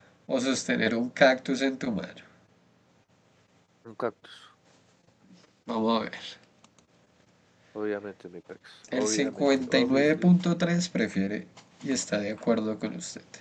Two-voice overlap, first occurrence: 8.9 s

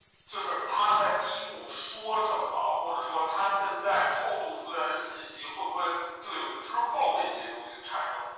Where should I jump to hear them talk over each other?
none

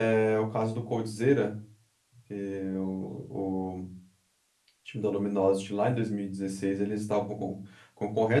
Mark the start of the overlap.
none

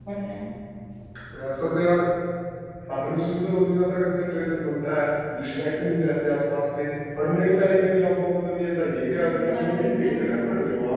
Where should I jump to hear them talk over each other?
9.1 s

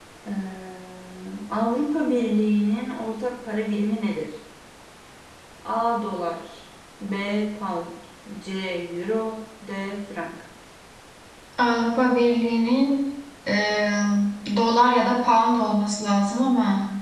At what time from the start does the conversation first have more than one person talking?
none

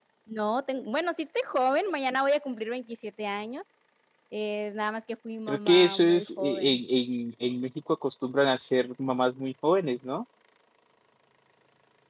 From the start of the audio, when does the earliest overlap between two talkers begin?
5.5 s

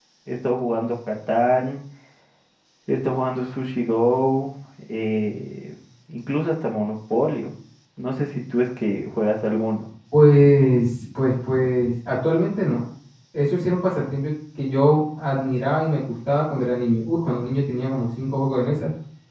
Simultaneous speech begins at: none

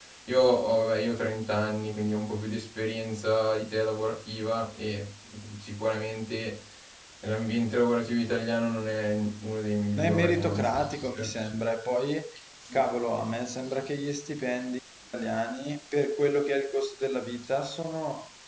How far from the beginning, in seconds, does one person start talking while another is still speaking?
10.0 s

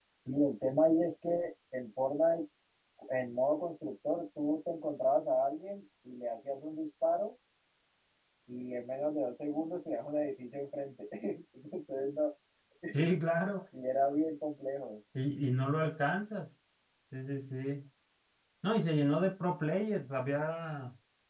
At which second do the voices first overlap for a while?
none

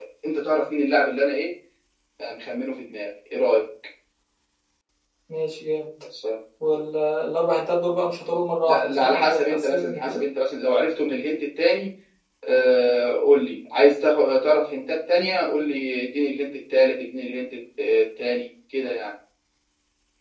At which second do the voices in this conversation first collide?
8.7 s

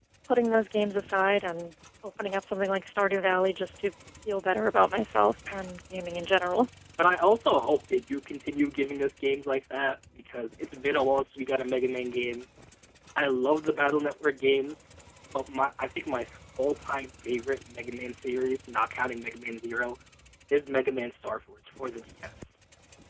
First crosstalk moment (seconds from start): none

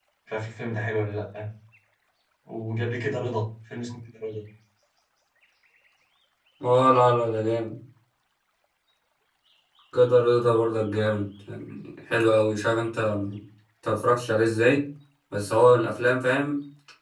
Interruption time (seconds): none

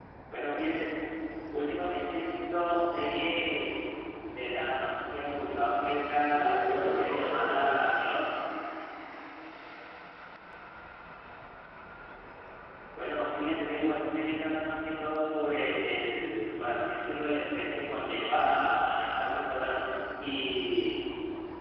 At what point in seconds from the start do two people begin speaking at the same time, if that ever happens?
6.3 s

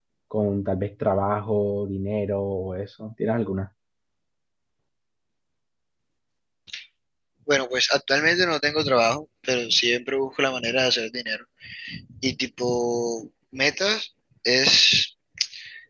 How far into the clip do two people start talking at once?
none

